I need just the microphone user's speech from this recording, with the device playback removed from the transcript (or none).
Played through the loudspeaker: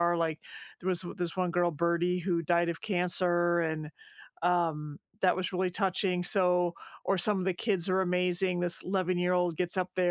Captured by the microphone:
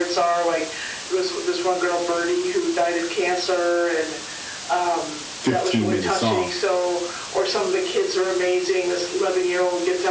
15 minute song.